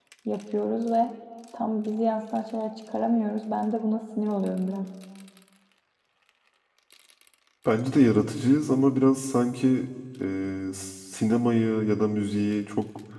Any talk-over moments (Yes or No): No